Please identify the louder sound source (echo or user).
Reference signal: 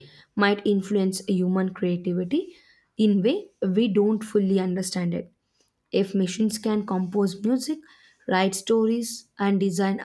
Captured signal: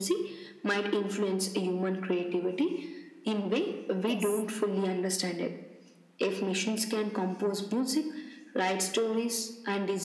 echo